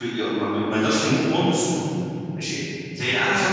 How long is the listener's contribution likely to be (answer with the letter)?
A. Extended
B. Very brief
B